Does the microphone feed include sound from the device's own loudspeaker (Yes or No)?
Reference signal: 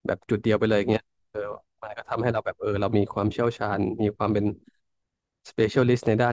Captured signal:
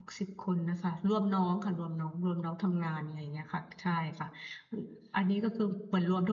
No